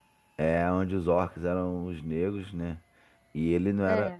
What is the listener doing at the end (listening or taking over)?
listening